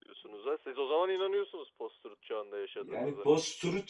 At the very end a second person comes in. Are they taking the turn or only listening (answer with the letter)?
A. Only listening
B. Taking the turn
B